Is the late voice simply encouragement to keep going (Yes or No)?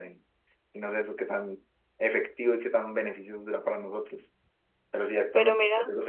Yes